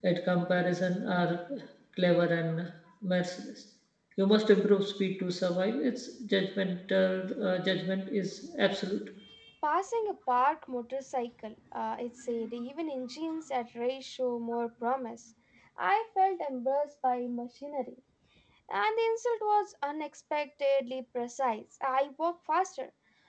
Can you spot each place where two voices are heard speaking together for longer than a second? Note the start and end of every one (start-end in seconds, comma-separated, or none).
none